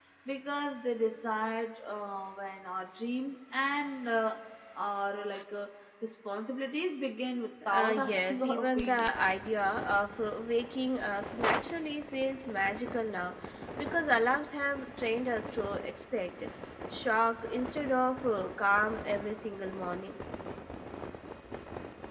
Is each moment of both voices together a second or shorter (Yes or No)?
No